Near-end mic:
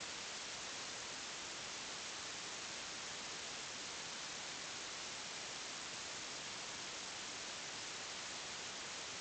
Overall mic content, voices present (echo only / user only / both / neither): neither